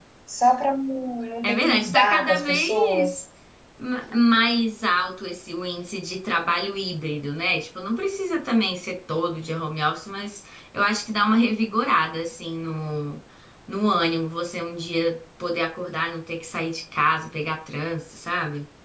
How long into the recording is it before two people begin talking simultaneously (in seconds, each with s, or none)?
1.4 s